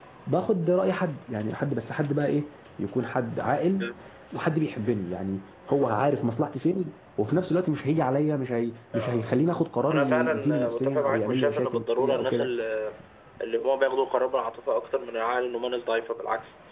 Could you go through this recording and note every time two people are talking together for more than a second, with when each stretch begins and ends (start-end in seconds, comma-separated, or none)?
9.8-12.5